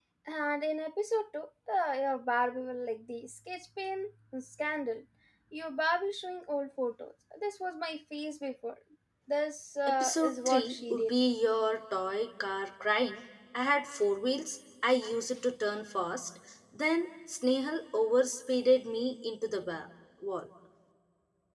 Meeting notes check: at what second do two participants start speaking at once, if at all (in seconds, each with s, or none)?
9.9 s